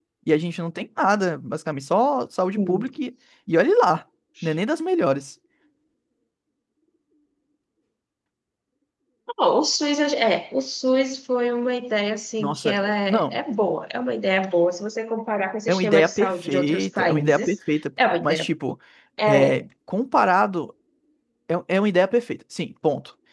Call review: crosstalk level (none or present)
present